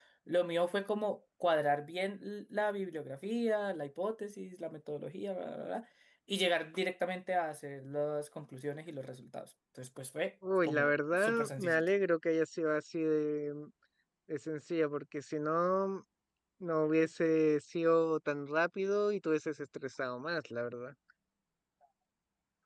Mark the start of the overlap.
10.6 s

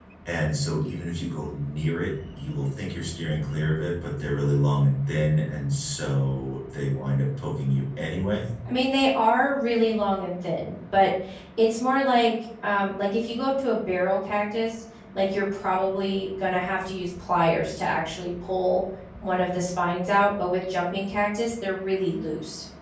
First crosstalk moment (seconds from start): none

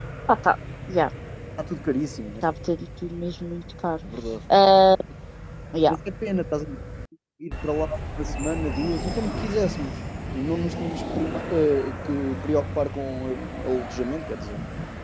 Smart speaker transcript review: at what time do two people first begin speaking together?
none

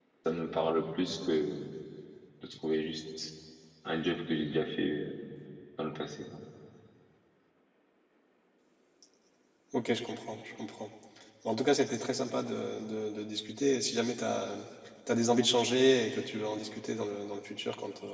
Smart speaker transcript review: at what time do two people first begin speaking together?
none

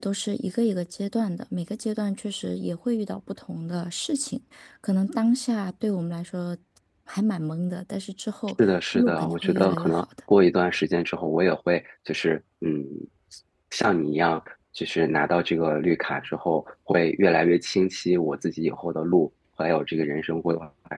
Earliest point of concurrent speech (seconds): 8.6 s

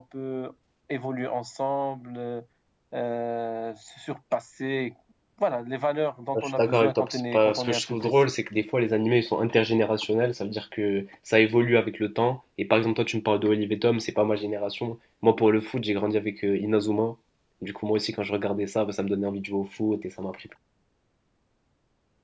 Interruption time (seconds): 6.3 s

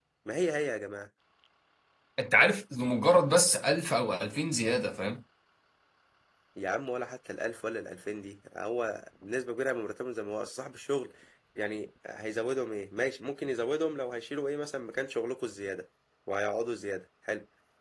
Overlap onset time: none

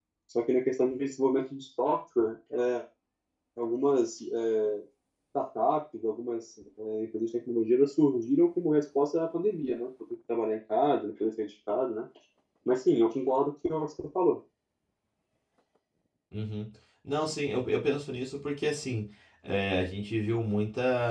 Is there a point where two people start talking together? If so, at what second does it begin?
none

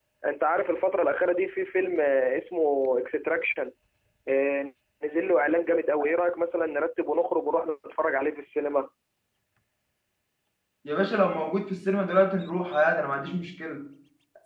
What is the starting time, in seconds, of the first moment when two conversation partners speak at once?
none

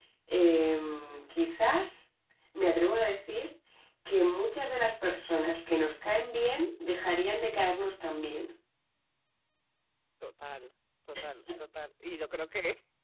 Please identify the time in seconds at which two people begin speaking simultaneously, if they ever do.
none

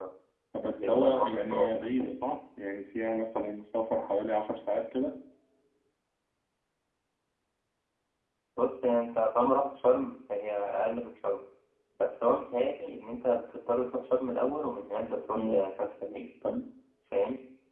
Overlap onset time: 0.8 s

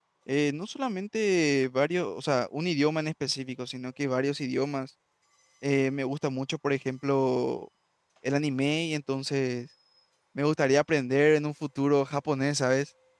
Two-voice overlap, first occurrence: none

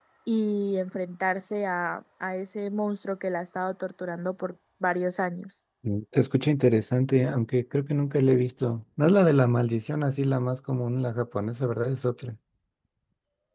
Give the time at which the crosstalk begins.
none

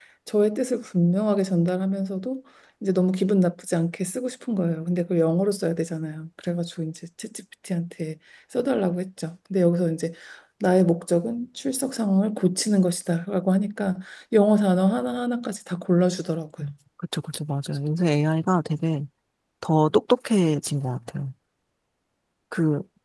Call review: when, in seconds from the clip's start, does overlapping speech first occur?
none

